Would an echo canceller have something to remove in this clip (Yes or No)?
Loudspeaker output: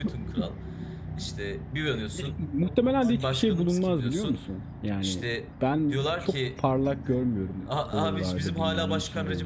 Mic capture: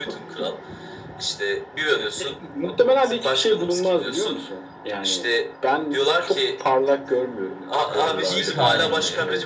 Yes